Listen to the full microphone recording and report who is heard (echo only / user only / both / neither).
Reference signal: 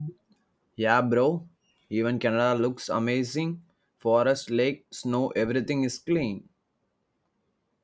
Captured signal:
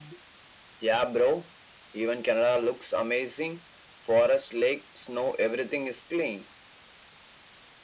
echo only